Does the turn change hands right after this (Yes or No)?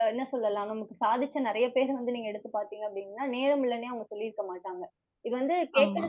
No